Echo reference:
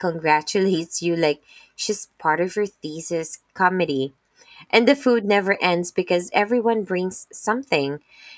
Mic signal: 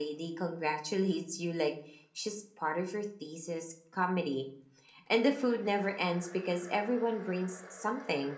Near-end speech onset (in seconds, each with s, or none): none